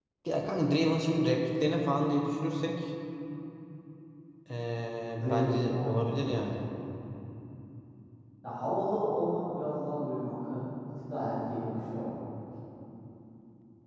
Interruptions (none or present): present